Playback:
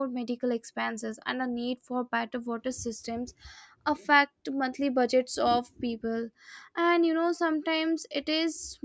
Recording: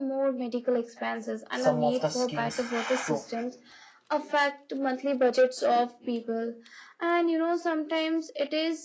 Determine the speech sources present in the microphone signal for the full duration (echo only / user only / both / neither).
both